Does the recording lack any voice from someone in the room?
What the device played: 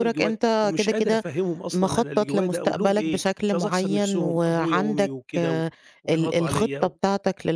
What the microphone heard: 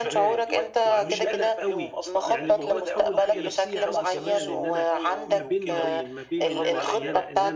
No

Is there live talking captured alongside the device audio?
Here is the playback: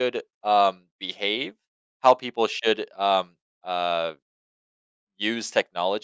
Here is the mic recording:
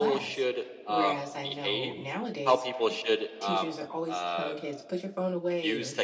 Yes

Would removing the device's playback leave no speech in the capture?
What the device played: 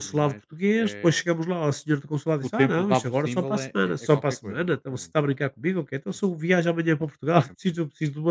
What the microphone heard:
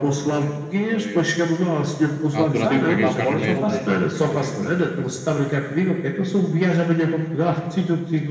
No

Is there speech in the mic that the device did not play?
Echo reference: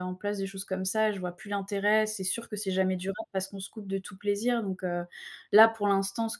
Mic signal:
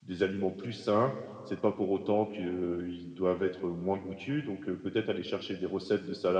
Yes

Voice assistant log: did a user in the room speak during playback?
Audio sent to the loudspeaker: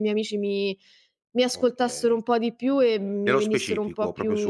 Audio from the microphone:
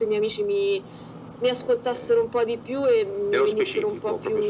No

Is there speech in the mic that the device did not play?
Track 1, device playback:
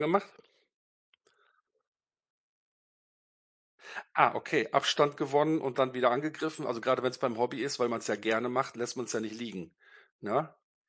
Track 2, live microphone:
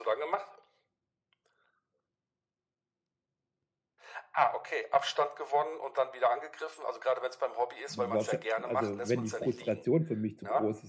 Yes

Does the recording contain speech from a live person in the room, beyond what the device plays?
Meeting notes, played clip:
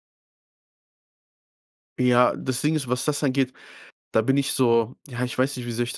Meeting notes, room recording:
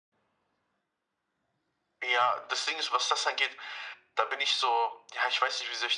No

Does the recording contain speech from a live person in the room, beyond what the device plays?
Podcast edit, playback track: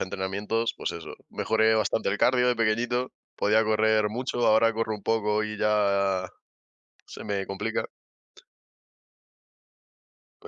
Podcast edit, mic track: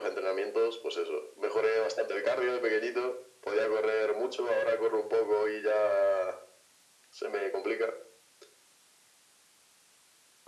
No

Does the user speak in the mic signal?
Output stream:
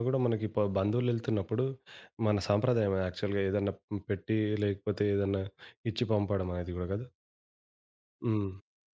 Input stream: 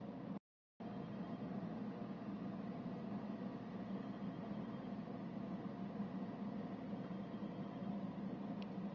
No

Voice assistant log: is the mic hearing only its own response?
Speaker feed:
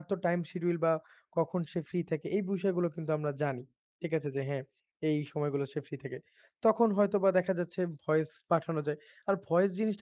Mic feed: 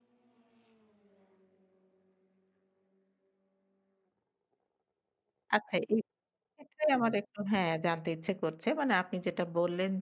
No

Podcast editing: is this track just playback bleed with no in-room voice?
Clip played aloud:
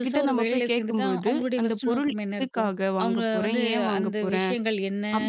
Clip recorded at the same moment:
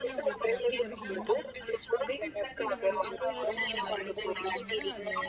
No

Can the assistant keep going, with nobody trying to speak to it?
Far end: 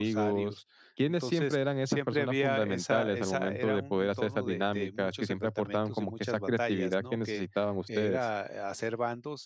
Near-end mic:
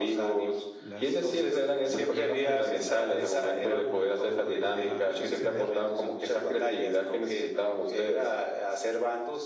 No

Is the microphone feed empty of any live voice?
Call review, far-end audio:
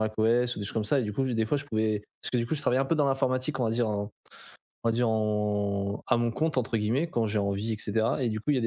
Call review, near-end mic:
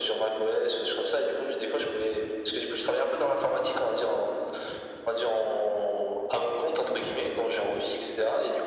Yes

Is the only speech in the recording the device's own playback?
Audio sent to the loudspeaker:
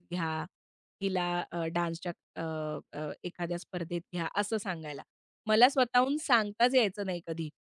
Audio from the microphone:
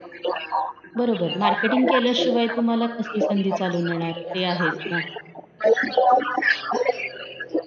No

